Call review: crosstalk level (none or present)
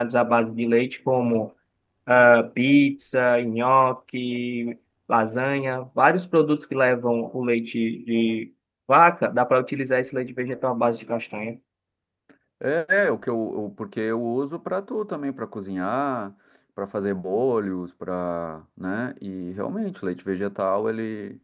none